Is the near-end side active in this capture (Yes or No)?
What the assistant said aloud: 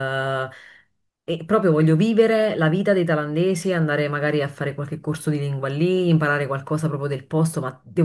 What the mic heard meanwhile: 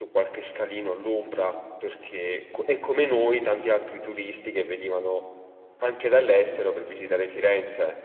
Yes